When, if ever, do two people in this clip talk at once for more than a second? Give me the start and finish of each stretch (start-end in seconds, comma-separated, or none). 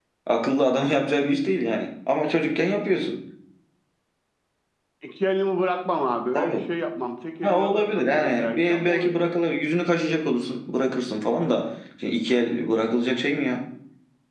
7.4-9.1